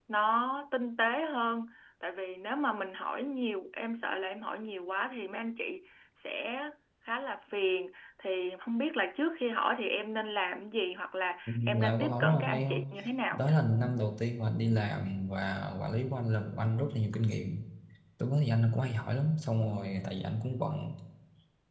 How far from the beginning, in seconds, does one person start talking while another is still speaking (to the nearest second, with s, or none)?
11 s